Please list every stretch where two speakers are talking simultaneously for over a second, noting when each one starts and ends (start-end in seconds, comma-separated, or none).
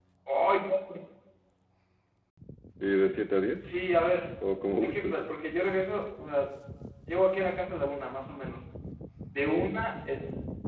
none